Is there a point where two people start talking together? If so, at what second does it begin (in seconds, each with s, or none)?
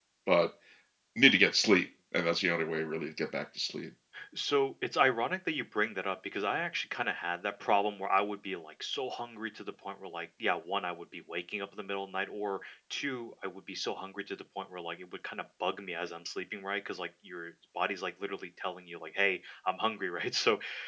none